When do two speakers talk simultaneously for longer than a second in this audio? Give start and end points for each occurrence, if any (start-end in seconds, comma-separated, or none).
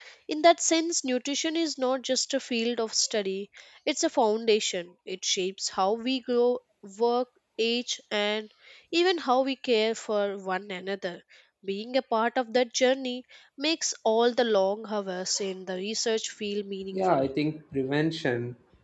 none